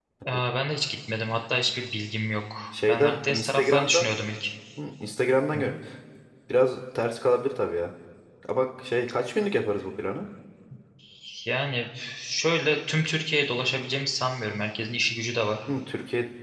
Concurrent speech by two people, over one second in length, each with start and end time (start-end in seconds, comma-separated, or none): 2.7-4.1